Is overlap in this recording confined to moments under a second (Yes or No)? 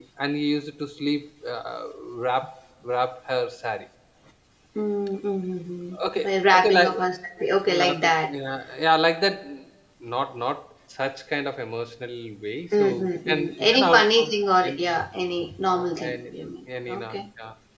No